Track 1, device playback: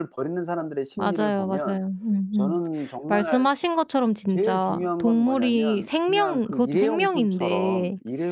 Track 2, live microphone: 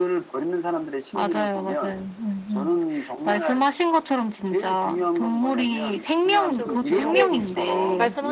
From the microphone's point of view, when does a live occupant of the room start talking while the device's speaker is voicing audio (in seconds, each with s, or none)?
6.4 s